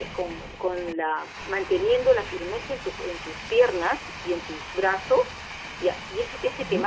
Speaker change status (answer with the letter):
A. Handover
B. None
B